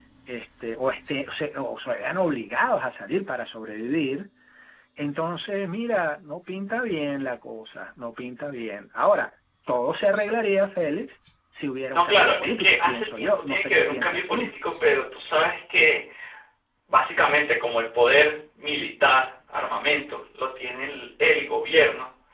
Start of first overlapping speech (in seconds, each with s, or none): 11.9 s